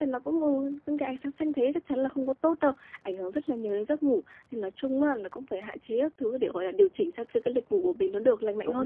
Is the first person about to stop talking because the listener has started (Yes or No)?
Yes